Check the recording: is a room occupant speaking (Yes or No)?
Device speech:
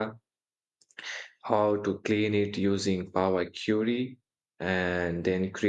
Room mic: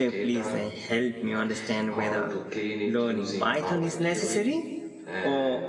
Yes